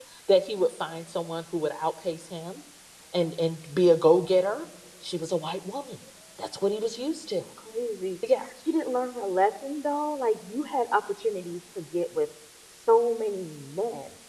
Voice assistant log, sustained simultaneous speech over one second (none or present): none